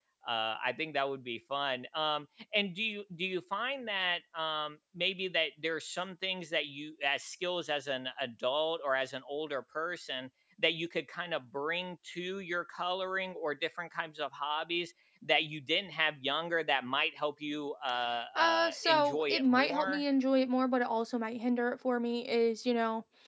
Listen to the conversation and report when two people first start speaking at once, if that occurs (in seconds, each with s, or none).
18.4 s